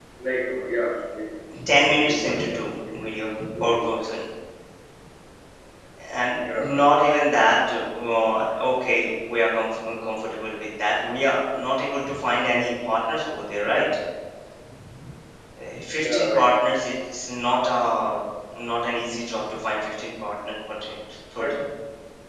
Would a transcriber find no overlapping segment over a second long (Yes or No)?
No